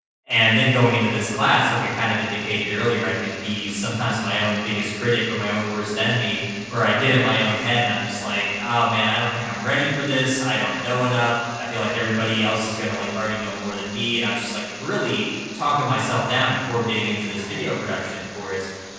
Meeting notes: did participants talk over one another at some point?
No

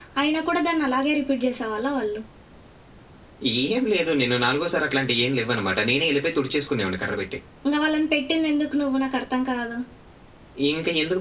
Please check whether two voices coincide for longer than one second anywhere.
No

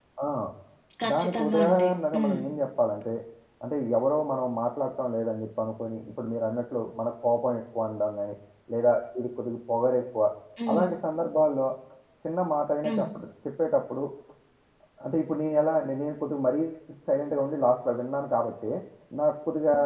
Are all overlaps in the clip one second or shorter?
No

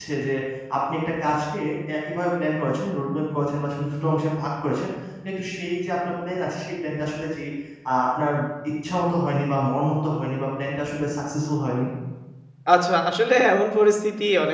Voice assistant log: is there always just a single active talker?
Yes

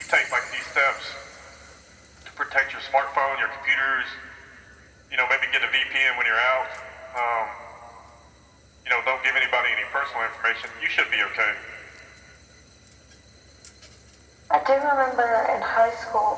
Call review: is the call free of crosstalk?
Yes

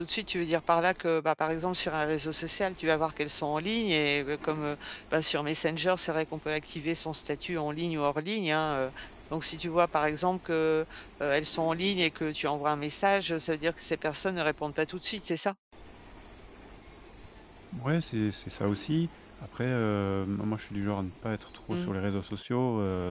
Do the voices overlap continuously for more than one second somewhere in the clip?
No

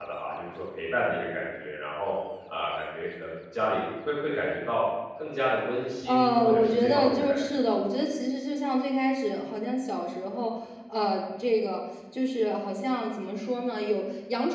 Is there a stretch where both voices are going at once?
Yes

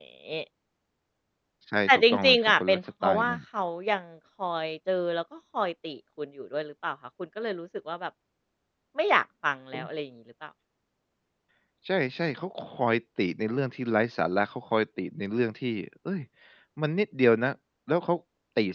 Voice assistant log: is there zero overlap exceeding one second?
No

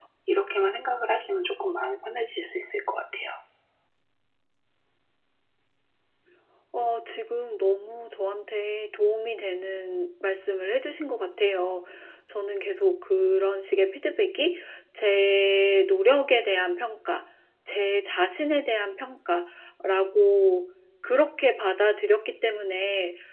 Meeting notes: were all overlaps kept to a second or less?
Yes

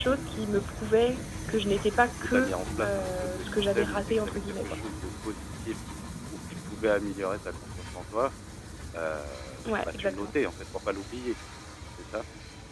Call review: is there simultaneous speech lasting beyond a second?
Yes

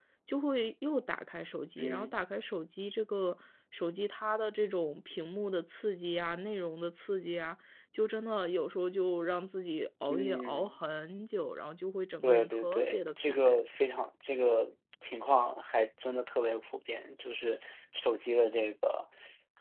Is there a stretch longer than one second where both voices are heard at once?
Yes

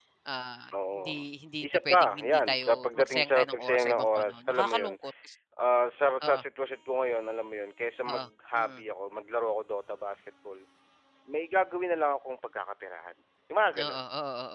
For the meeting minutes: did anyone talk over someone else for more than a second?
Yes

